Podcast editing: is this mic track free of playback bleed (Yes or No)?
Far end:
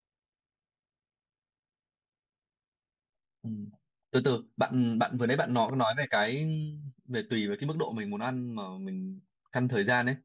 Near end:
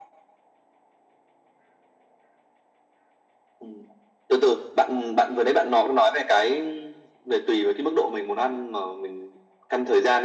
No